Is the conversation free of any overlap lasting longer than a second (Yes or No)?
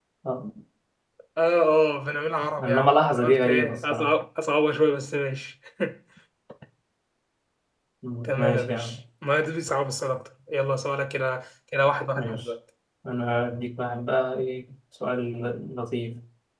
No